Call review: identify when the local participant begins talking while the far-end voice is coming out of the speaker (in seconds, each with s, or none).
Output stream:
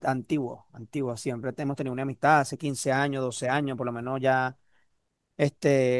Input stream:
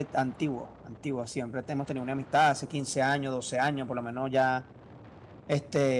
none